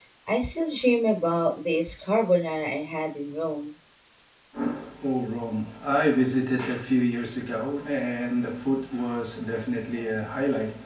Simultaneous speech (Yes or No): No